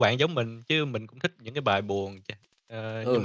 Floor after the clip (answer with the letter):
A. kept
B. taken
B